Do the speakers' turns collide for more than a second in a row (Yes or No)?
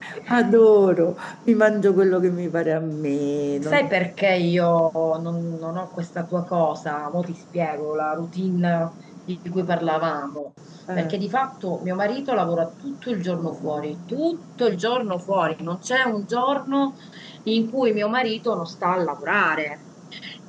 No